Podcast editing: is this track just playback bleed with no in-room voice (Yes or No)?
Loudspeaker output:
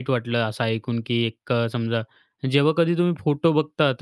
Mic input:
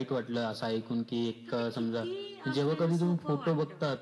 No